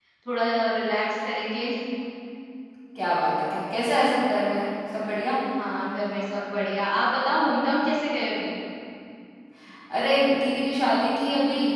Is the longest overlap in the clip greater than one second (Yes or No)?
No